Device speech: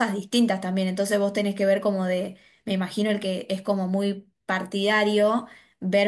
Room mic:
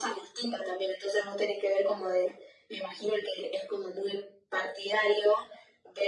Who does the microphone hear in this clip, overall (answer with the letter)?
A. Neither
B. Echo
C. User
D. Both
B